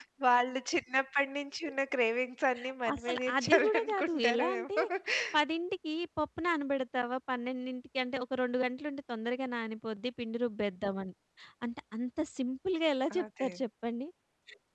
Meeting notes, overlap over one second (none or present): present